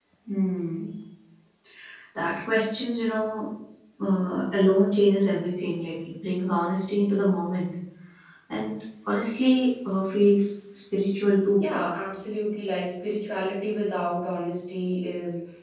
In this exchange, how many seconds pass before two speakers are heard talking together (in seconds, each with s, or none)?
none